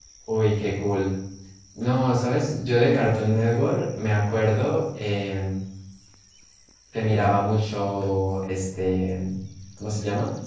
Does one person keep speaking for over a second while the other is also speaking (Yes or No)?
No